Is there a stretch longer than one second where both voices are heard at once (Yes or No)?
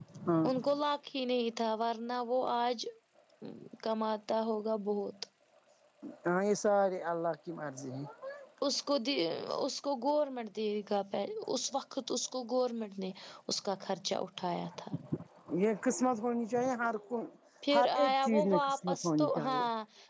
Yes